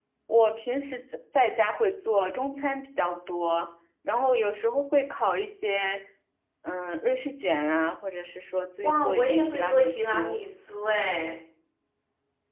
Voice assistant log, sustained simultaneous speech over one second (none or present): present